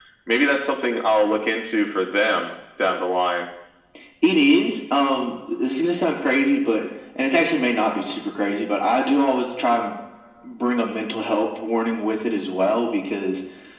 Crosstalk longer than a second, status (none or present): none